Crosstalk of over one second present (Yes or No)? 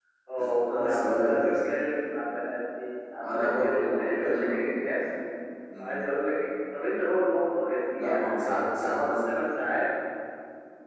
Yes